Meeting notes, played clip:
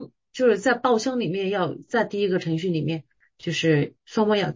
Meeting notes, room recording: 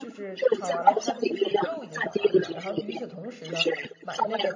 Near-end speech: present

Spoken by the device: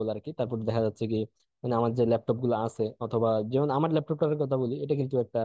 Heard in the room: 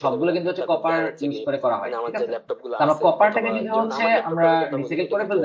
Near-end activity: present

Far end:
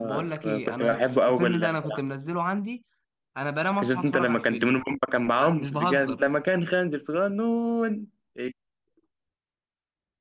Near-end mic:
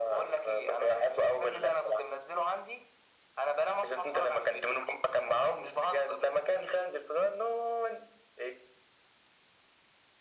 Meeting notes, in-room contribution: none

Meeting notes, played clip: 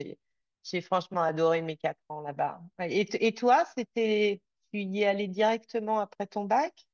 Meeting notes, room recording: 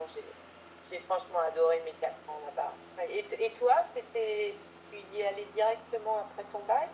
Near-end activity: none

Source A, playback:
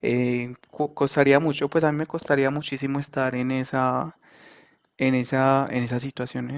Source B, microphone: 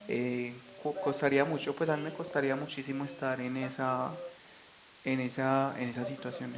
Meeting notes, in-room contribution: present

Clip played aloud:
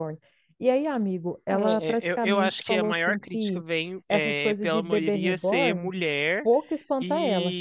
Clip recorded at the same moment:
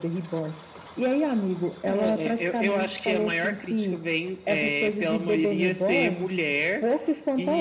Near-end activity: none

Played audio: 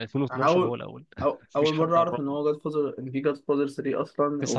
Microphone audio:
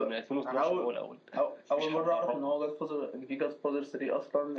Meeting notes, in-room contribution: none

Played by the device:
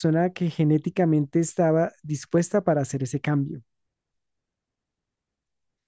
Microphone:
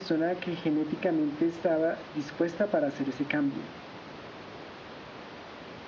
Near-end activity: none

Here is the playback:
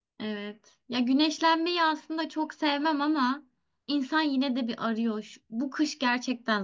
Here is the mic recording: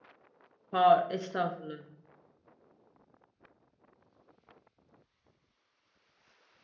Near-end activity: present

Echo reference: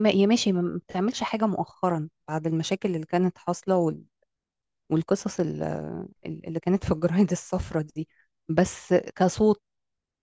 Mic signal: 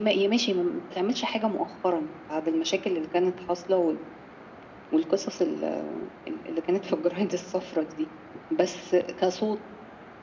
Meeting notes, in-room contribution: none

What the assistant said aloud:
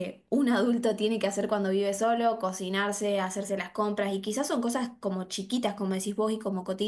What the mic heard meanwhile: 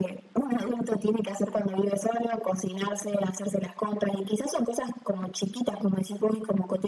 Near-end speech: none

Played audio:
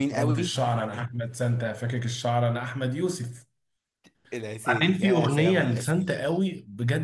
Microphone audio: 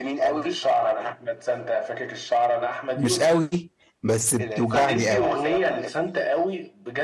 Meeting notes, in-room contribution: present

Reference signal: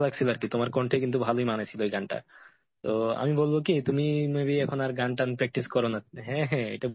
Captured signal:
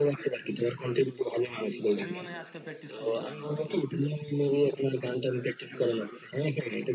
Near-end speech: present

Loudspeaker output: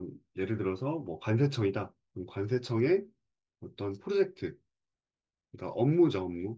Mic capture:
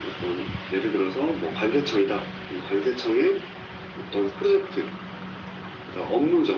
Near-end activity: none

